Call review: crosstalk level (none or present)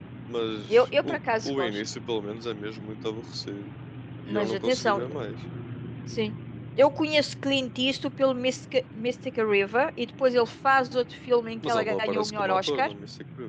present